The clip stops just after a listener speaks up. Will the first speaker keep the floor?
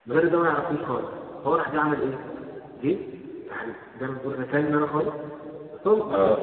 Yes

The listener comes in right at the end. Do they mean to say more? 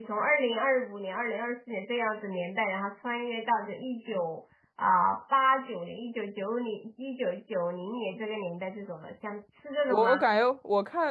Yes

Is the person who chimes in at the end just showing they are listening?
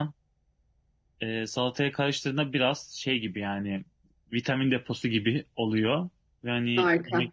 Yes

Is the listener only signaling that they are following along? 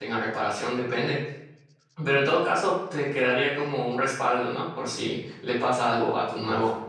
Yes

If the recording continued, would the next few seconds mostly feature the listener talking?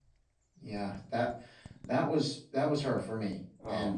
No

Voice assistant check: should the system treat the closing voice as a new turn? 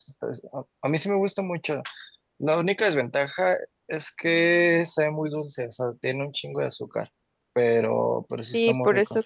Yes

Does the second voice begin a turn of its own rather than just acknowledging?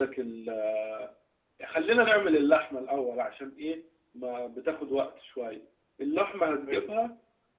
No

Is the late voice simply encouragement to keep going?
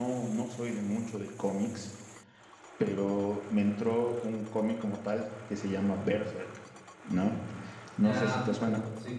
No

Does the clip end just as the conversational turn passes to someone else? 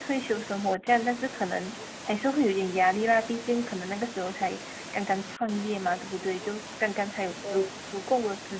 No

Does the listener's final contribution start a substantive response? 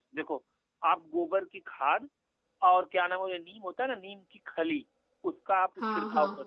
No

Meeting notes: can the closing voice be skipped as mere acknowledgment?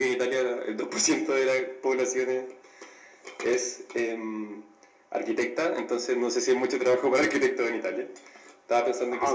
No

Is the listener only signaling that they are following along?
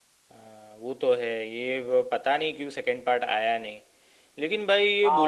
No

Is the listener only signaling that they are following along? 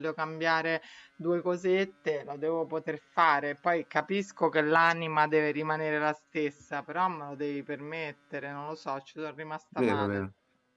No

